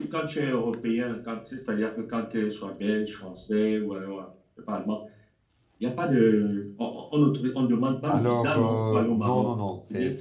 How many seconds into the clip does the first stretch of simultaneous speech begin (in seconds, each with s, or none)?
8.0 s